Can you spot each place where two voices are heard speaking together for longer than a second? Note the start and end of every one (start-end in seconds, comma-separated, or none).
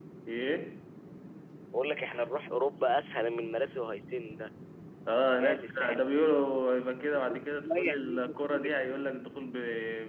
5.4-6.6, 7.1-9.0